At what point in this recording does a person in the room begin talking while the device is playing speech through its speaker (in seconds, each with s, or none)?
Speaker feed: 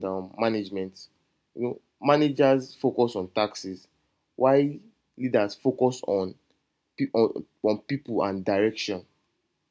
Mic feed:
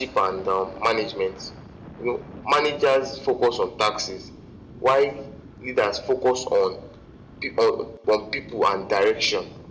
none